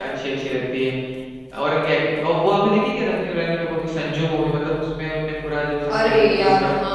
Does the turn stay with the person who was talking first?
No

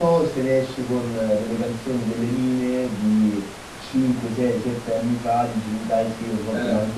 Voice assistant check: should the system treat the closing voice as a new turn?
No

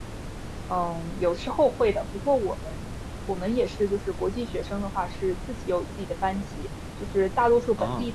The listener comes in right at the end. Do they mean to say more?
No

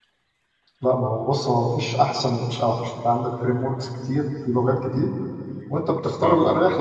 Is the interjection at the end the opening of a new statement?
No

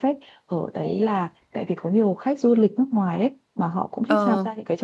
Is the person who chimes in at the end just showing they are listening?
Yes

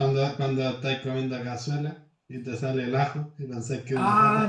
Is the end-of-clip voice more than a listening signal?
Yes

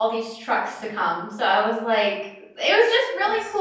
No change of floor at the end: Yes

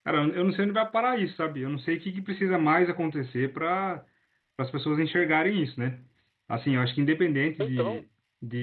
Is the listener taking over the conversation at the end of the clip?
No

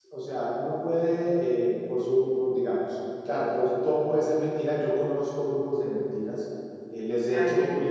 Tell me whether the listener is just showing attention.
Yes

